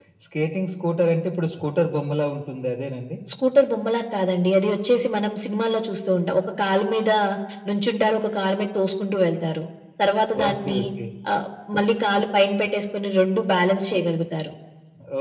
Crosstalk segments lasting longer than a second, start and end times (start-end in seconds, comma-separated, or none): none